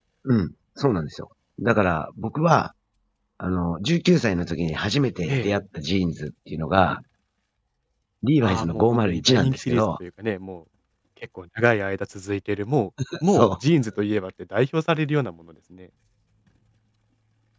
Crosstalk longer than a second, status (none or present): present